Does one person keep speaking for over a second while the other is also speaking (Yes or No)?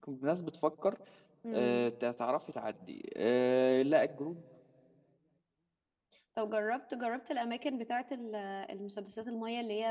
No